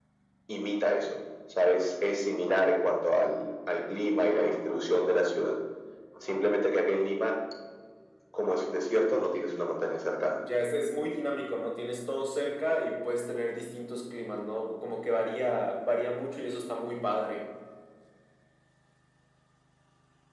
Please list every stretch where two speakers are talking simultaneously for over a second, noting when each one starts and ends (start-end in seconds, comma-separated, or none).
none